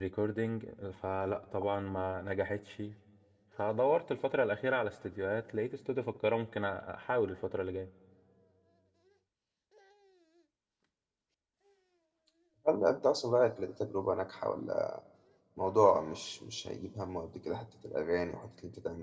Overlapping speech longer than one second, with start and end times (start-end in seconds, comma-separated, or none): none